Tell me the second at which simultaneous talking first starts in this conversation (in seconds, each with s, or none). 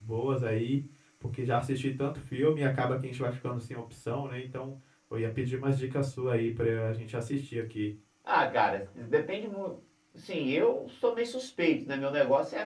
none